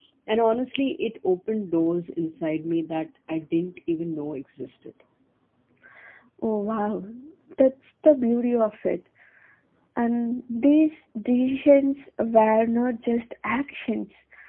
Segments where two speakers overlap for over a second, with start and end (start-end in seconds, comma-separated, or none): none